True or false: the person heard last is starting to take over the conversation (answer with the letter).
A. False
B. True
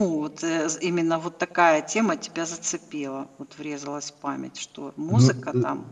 B